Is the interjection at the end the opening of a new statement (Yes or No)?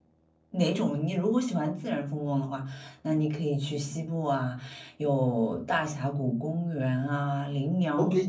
Yes